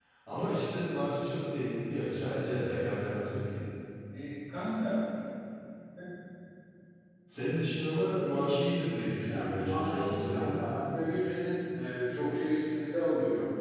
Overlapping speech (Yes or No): Yes